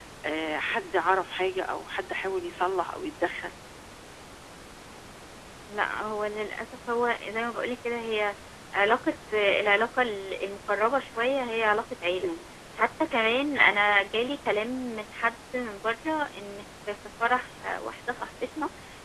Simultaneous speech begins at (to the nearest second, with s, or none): none